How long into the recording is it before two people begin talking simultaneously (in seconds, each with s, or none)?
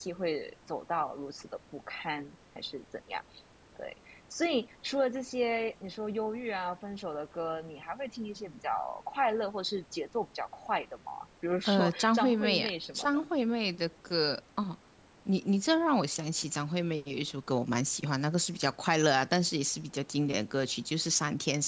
11.6 s